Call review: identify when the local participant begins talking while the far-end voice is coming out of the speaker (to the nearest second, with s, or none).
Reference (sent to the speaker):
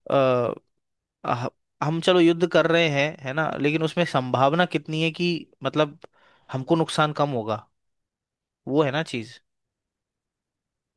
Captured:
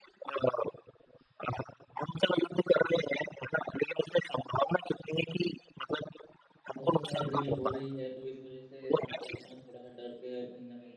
7 s